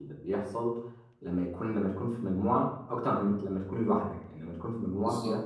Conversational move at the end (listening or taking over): listening